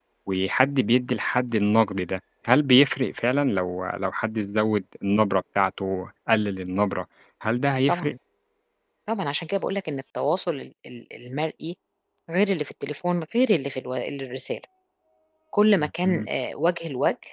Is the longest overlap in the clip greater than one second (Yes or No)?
No